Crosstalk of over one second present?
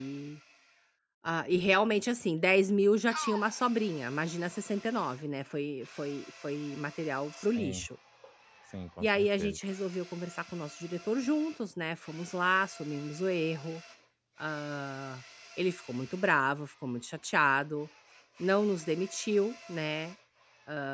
No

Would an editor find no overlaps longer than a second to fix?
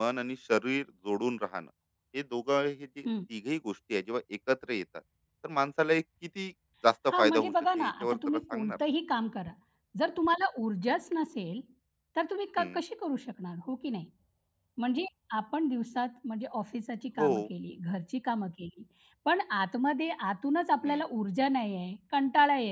No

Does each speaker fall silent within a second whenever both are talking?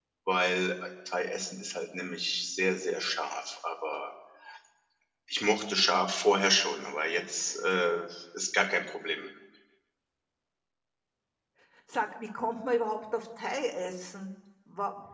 Yes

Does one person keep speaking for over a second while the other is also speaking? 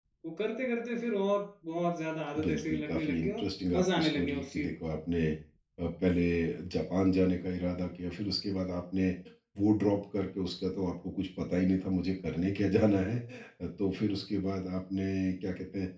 Yes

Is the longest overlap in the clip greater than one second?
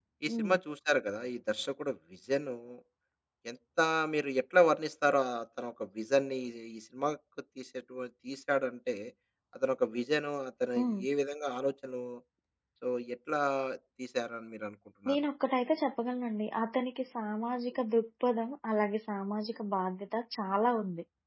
No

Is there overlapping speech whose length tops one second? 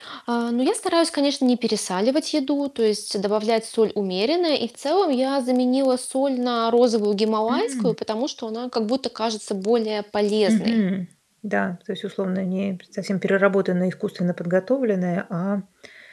No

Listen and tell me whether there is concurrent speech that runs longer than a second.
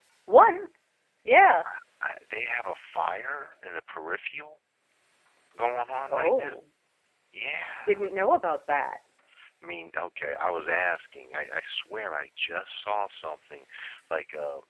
No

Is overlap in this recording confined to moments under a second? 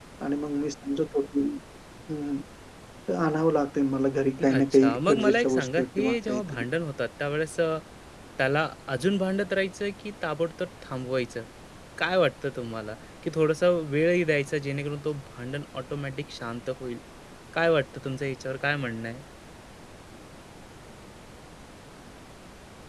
No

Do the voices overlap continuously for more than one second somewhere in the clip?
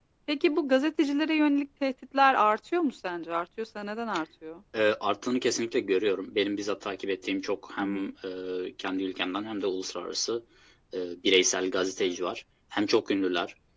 No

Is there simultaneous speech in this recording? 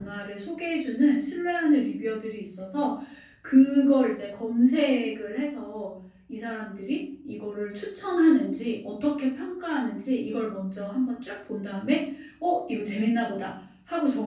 No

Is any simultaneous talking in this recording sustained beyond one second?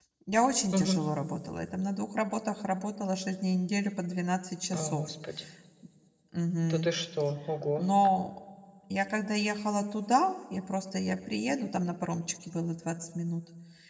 No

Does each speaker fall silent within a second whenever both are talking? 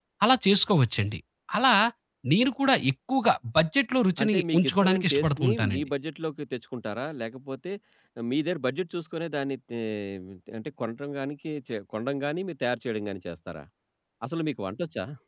No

